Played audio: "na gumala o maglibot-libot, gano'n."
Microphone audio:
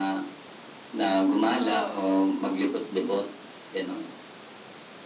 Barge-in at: 1.6 s

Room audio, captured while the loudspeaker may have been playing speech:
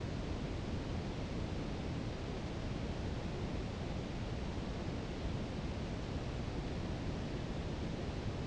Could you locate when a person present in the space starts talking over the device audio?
none

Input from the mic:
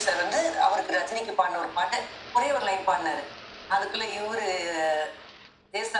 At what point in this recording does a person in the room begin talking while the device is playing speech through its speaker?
none

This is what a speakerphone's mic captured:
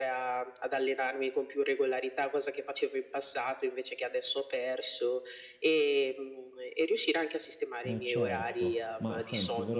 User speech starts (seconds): 7.8 s

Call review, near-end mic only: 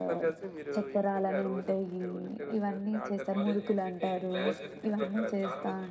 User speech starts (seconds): 3.3 s

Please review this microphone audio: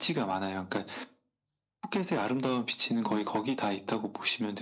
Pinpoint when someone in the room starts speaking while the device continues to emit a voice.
3.0 s

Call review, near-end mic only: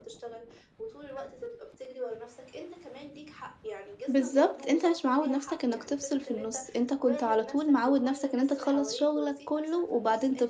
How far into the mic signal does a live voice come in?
4.1 s

